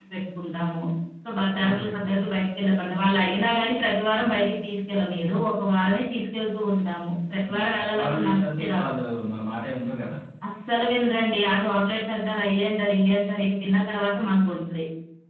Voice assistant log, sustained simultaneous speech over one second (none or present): present